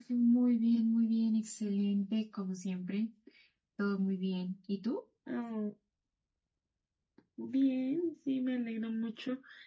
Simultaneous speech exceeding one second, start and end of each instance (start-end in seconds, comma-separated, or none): none